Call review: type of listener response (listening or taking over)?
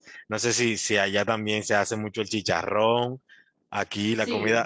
listening